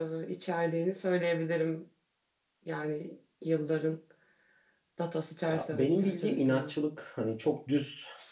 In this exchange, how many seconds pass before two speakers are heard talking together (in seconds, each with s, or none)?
5.5 s